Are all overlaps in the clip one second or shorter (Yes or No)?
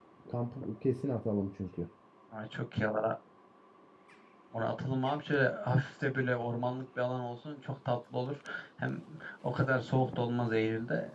Yes